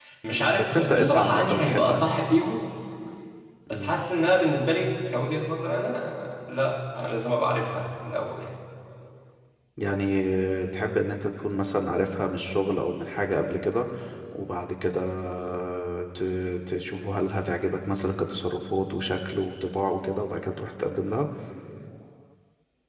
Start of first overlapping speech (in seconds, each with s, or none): 0.5 s